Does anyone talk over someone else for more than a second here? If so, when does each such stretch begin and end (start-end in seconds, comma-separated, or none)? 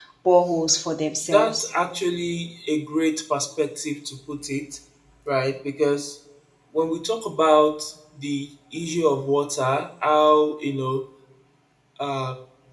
none